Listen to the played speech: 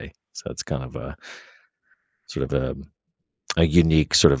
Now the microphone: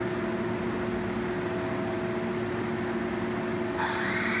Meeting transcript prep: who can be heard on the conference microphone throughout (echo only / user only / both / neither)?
neither